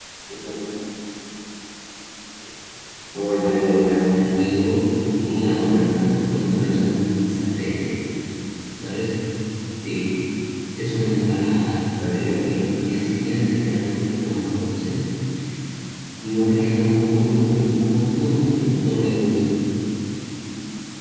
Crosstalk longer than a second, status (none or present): present